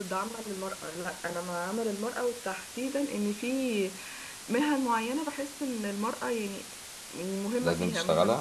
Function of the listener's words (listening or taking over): listening